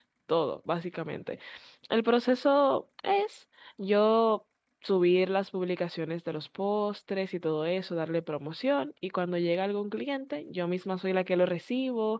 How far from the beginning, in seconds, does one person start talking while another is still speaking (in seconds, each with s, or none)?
none